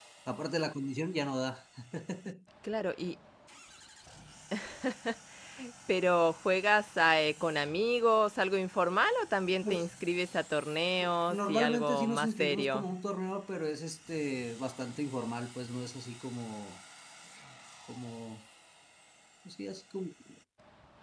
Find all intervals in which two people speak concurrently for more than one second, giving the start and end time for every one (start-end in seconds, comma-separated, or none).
11.0-12.8